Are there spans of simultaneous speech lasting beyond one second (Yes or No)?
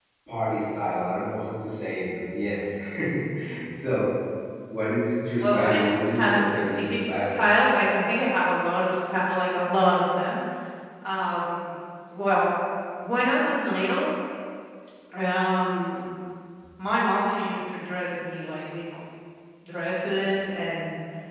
Yes